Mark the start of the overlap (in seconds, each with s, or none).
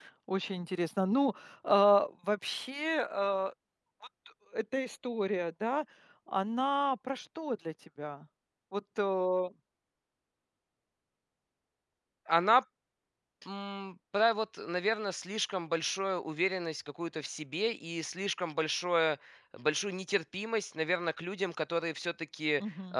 none